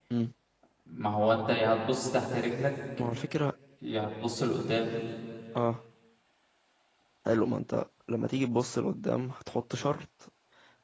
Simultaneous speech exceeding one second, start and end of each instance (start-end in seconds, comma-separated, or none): none